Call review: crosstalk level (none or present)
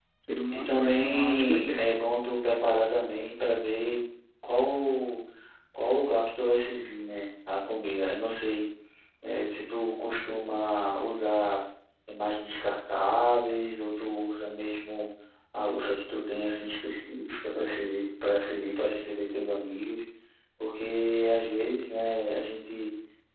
present